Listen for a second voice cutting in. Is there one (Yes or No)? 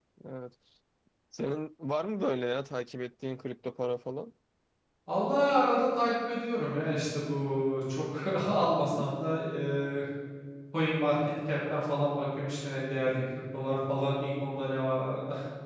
No